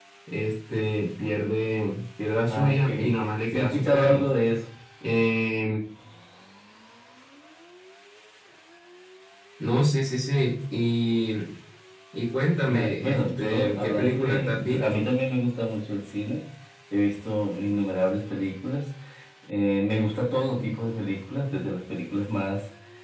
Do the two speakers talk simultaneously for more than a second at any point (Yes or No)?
Yes